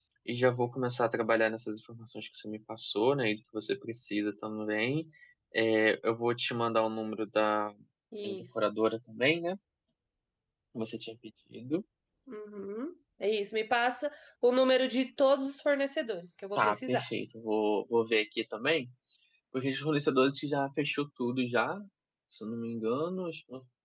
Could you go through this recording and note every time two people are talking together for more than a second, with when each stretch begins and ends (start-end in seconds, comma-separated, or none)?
none